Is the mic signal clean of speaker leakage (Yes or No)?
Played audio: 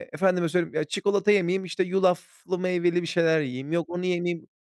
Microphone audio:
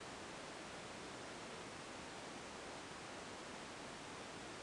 Yes